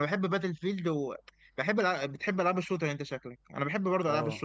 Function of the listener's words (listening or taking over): listening